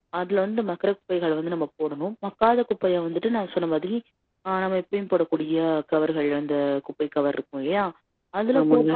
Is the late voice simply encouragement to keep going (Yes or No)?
Yes